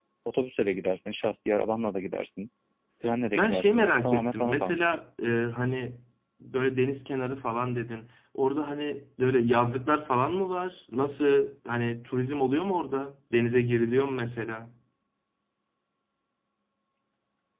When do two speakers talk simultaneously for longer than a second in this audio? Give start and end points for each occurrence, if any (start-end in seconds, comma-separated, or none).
3.3-5.0